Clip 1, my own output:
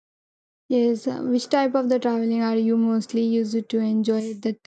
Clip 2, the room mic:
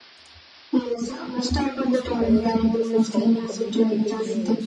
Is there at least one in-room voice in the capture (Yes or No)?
Yes